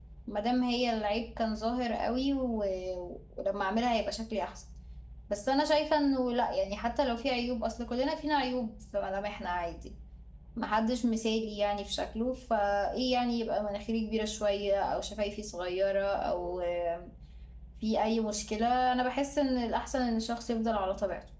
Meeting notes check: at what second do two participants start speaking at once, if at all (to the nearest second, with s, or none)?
none